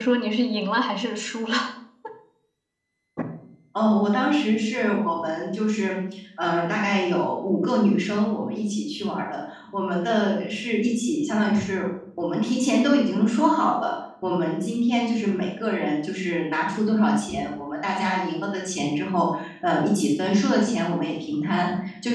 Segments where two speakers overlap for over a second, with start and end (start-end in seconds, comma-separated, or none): none